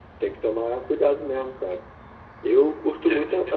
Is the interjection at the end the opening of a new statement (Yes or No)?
No